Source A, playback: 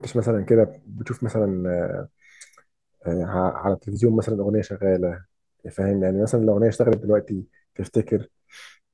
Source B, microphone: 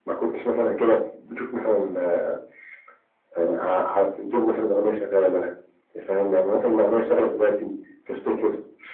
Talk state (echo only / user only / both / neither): echo only